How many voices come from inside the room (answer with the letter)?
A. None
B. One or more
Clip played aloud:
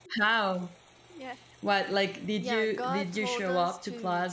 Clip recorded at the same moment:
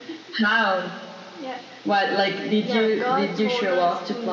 A